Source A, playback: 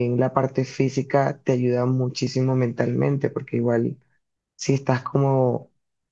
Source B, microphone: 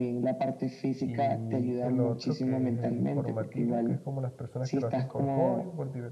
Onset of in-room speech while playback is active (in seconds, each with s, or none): 1.0 s